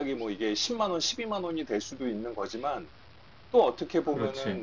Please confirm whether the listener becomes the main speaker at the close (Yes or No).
No